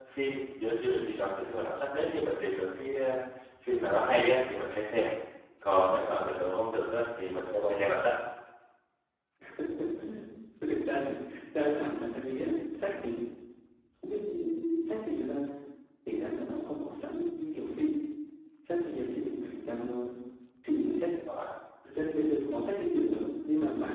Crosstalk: none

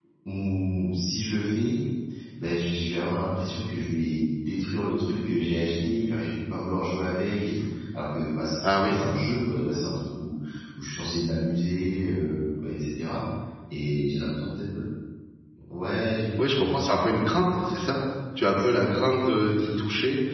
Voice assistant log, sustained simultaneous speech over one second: none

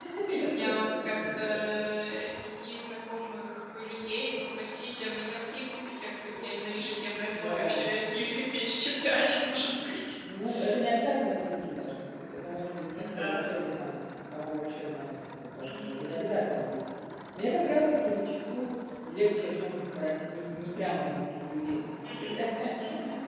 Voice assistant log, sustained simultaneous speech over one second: present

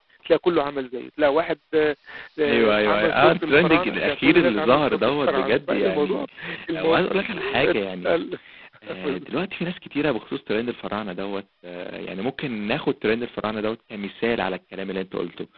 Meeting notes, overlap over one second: present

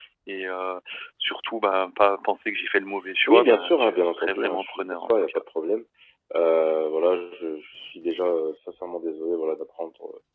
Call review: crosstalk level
present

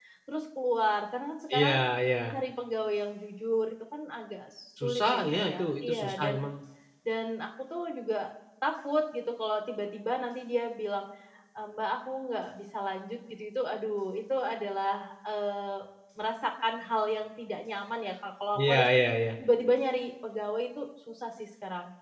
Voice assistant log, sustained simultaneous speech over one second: present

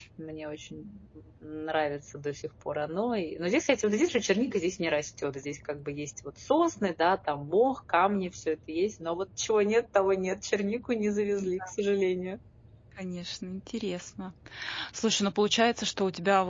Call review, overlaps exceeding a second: none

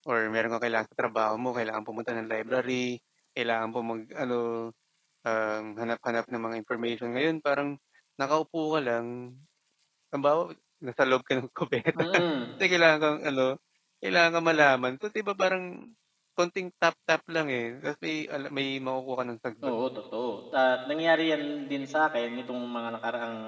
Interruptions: none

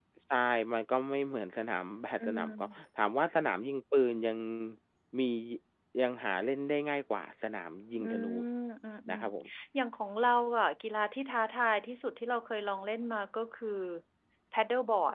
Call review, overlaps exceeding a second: none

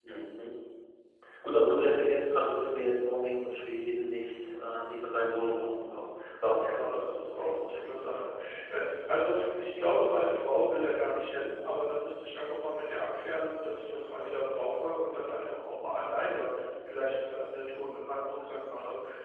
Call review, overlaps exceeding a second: present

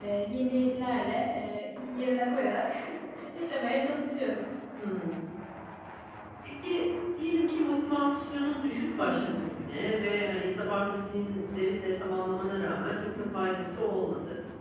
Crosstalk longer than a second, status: none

